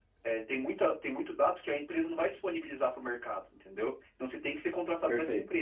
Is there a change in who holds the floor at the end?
No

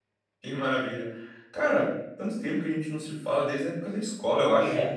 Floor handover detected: Yes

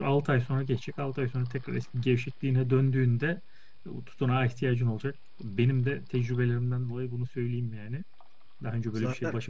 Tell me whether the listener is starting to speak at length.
No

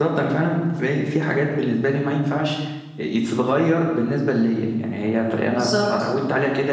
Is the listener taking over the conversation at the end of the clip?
No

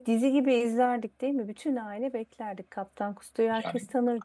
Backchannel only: No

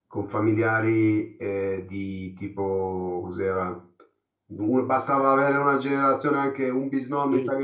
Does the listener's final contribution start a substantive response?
Yes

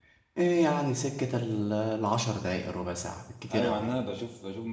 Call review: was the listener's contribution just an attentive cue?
No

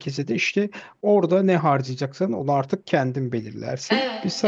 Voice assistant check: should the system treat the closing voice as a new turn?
No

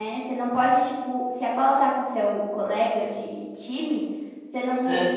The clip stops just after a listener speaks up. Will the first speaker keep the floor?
Yes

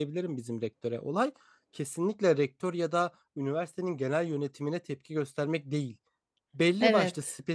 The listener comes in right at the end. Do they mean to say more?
No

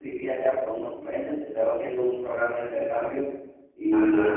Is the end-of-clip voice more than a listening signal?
No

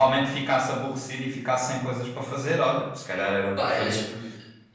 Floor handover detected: Yes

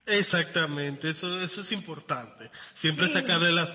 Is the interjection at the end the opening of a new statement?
No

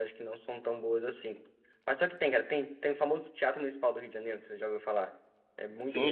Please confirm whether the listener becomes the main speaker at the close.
Yes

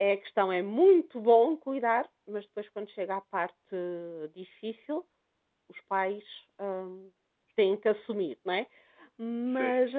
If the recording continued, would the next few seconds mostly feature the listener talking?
No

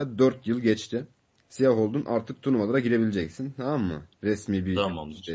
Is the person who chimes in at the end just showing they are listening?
Yes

